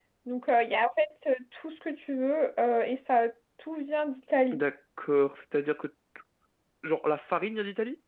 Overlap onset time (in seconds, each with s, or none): none